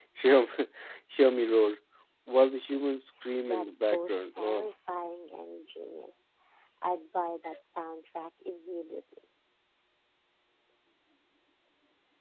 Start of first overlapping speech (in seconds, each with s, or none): 3.5 s